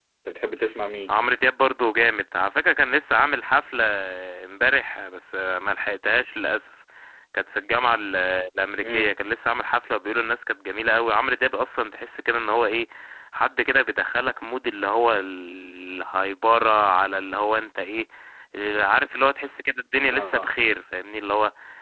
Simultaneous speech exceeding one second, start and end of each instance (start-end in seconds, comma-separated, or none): none